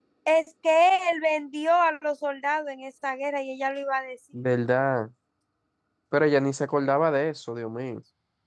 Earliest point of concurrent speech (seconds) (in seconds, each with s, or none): none